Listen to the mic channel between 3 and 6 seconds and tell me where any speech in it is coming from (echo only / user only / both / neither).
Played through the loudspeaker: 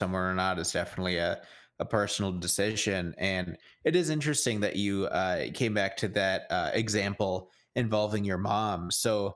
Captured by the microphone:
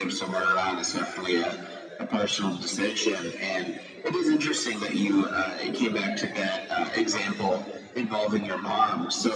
echo only